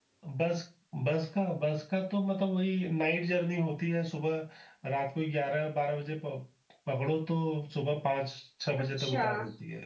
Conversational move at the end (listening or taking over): listening